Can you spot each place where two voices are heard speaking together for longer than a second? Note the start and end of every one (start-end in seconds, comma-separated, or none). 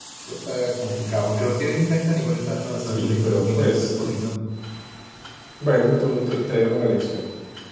2.8-4.1